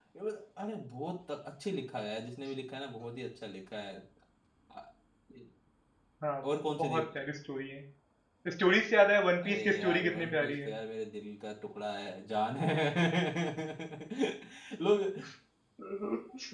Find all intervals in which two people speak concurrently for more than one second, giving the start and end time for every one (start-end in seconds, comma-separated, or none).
9.4-10.7